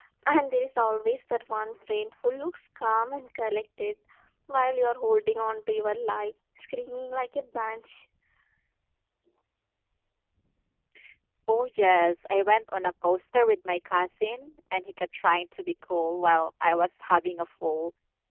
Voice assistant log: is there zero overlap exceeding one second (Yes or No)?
Yes